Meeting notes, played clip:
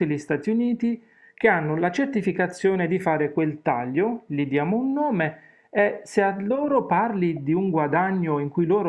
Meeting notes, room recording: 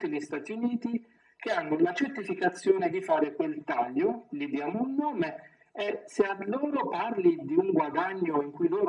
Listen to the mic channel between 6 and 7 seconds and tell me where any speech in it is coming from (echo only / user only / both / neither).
echo only